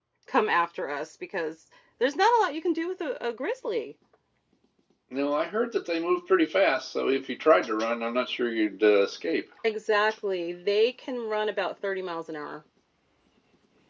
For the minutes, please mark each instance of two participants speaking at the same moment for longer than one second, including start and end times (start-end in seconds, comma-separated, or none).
none